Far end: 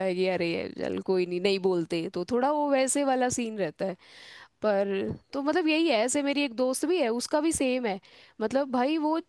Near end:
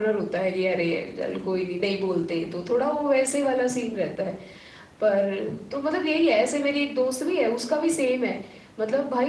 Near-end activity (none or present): none